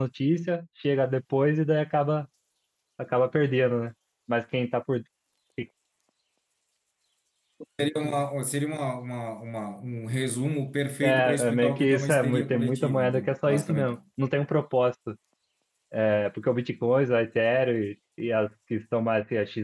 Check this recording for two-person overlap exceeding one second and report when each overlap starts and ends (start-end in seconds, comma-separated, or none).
11.0-13.9